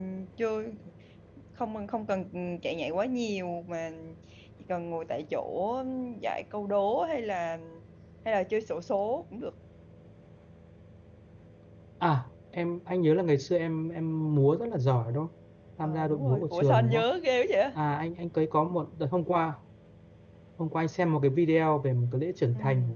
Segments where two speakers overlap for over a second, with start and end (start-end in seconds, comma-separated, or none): 15.8-17.0